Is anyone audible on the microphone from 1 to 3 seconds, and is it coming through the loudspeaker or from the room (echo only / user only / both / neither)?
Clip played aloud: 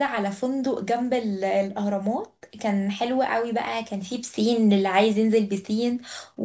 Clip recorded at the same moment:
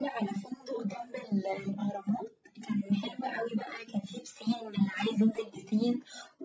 echo only